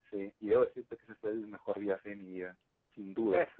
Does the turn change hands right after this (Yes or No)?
Yes